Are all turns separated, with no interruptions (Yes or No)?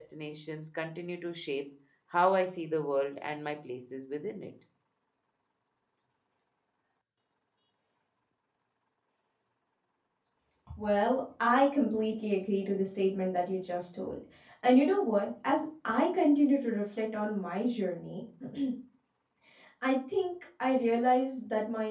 Yes